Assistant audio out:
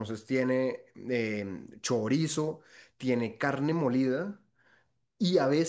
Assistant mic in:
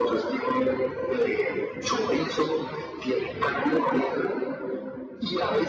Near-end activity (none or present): none